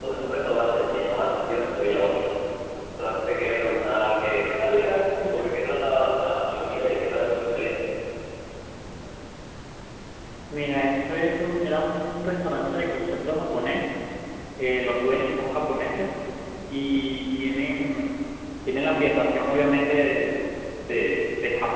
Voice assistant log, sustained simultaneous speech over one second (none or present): none